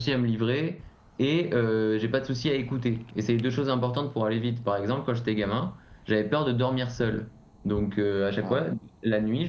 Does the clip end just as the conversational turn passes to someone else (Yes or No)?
No